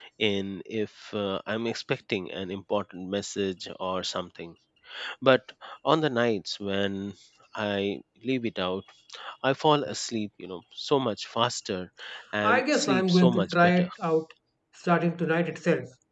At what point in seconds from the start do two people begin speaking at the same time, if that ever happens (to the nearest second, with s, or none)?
12 s